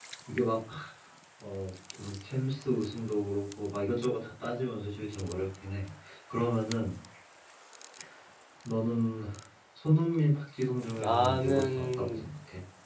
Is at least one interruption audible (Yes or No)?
Yes